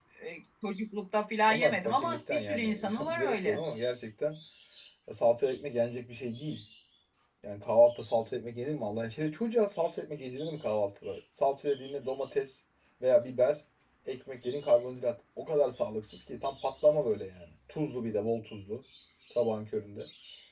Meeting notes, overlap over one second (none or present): present